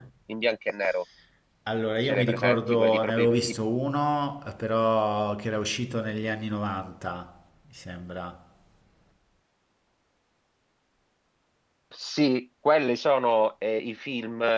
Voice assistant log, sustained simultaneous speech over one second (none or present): present